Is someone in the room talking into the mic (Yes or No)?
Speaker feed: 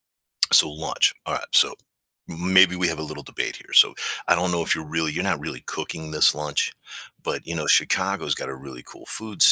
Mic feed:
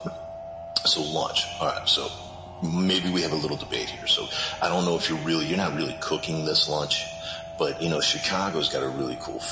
No